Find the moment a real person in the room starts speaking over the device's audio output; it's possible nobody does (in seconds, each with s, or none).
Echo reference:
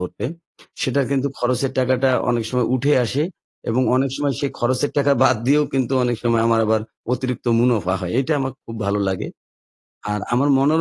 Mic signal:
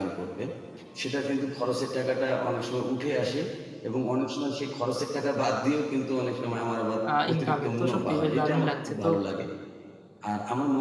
7.1 s